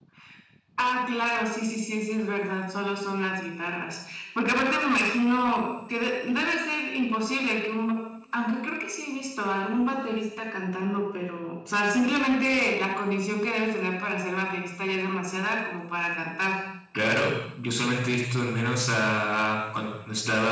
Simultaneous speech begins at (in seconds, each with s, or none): none